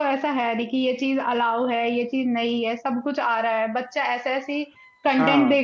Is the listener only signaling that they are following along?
Yes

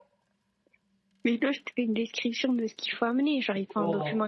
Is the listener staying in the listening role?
Yes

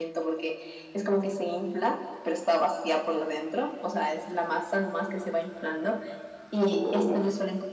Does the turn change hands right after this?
No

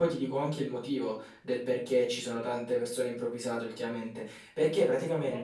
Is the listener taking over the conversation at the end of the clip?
No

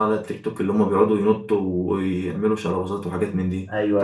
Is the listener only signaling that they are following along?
No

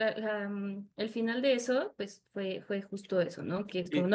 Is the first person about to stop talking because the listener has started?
No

